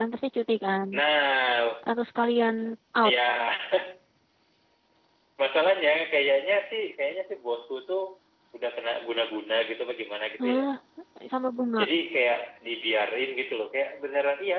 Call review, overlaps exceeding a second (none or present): none